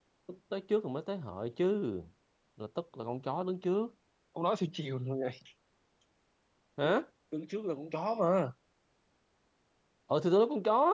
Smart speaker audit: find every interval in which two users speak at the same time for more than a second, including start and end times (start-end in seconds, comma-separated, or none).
none